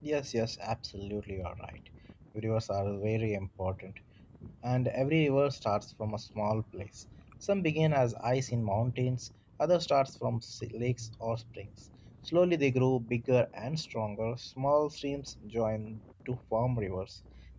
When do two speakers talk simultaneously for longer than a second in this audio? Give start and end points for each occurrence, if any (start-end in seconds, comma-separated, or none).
none